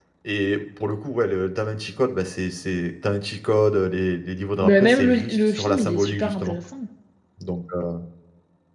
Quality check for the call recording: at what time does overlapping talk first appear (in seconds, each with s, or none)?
4.6 s